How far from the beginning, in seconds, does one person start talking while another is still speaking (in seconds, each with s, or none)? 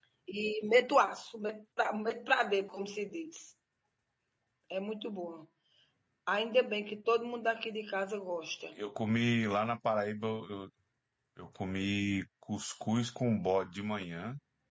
none